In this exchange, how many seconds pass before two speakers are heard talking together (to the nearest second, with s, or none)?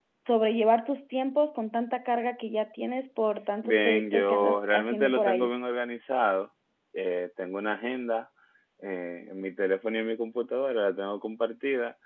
4 s